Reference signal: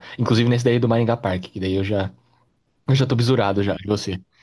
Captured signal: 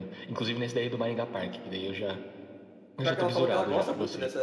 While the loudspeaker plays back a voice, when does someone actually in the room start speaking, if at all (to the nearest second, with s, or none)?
3 s